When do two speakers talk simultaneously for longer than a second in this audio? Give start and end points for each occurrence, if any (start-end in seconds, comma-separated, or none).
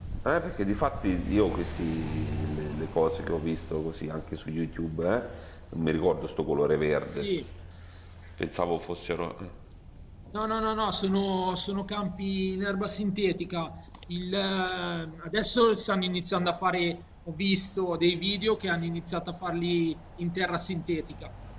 none